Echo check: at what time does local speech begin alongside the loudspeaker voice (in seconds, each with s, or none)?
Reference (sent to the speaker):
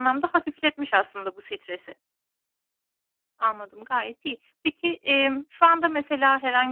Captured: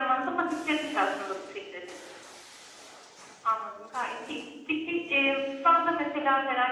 none